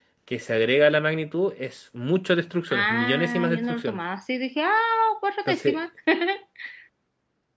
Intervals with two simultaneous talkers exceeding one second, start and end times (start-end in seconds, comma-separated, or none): 2.7-4.0